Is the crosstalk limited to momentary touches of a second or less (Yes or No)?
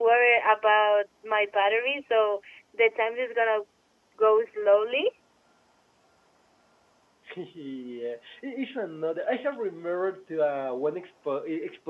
Yes